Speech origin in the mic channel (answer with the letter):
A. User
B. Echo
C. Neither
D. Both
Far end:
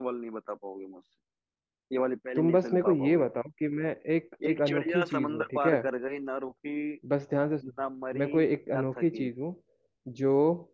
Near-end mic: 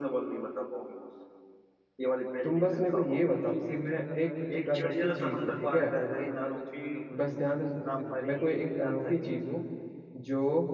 D